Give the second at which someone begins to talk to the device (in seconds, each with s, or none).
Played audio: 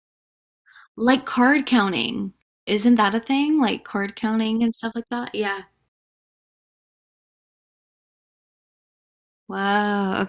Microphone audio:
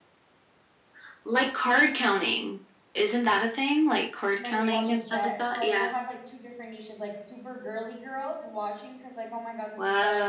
4.3 s